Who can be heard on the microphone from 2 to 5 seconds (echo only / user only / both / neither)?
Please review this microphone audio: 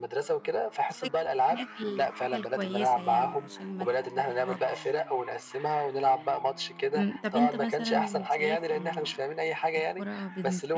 both